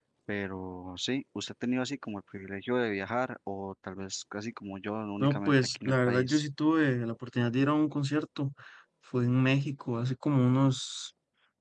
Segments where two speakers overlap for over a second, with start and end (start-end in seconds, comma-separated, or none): 5.2-6.4